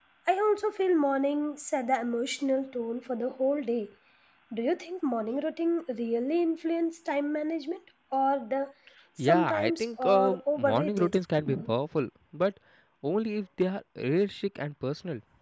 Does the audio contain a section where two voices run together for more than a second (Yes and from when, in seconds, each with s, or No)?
Yes, from 9.2 s